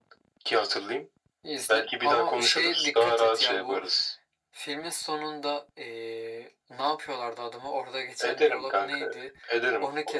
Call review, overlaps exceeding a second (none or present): present